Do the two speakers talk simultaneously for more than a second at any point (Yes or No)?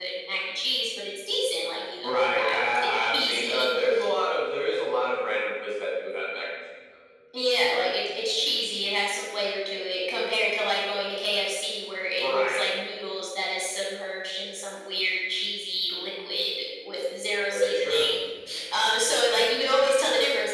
Yes